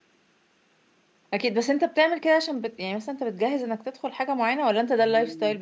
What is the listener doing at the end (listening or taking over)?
taking over